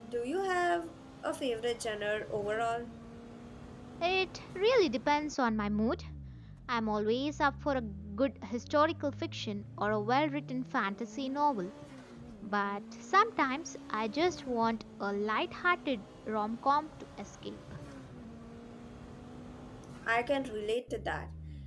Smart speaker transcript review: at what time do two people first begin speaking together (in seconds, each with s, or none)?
none